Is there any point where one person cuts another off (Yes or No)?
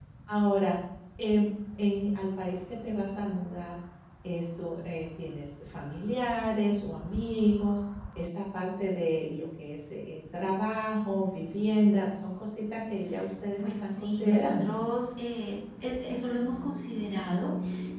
Yes